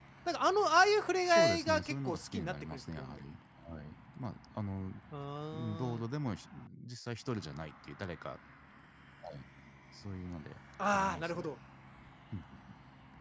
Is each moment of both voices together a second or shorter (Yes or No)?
No